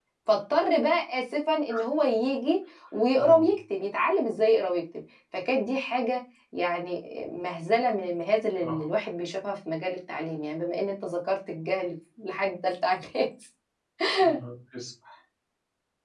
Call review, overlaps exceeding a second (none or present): none